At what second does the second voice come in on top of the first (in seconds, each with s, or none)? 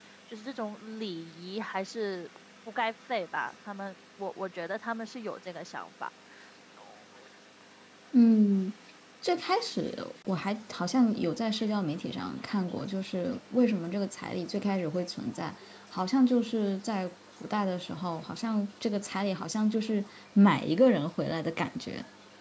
none